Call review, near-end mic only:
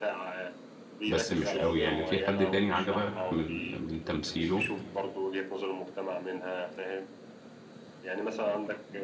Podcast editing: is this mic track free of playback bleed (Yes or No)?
No